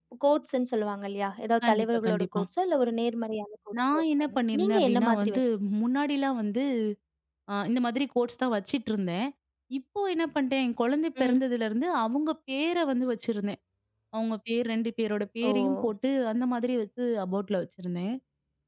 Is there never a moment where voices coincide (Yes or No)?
No